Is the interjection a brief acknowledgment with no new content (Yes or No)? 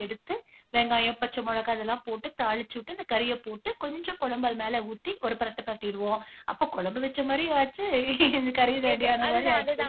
No